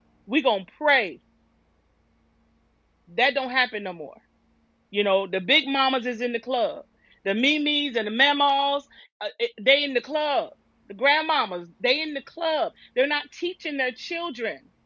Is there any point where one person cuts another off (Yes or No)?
No